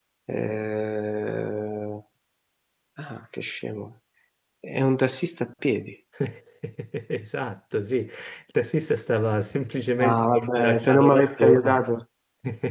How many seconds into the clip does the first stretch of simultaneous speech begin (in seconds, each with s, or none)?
10.0 s